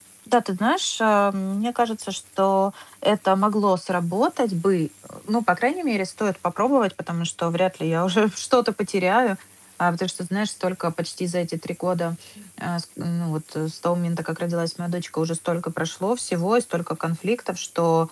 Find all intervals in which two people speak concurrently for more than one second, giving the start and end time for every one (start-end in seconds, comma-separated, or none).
none